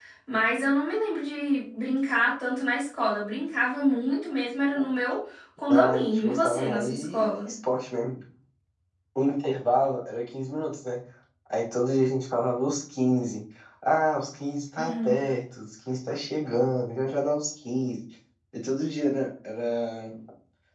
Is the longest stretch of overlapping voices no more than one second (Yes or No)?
No